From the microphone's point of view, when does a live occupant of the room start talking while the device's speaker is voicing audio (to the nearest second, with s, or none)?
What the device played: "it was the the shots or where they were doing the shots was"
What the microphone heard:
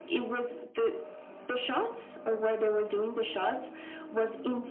none